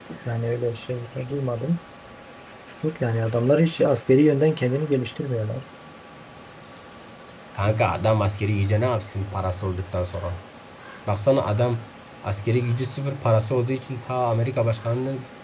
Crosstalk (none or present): none